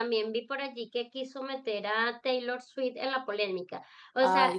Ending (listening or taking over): listening